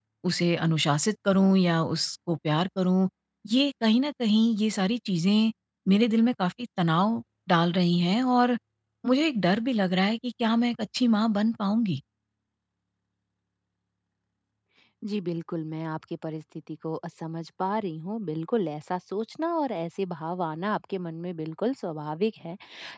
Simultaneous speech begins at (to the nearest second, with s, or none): none